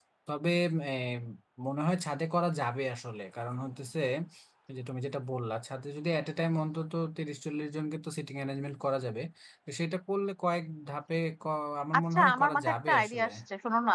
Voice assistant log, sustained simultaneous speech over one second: present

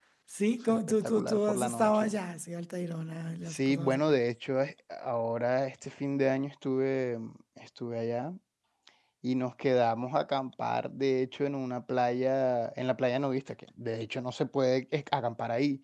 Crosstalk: present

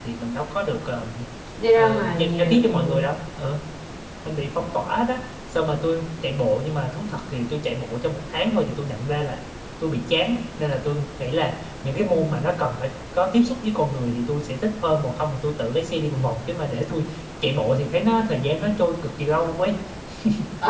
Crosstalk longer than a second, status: present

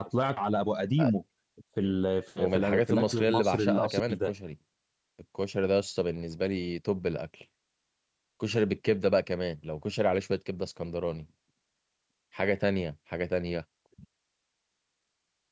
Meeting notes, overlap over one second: present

